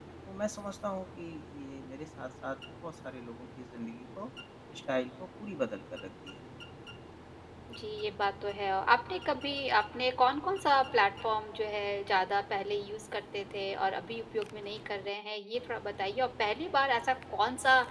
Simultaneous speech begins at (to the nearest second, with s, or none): none